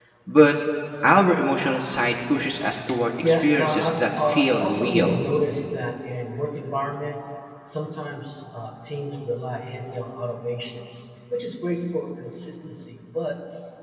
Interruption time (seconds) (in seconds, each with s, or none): 3.2 s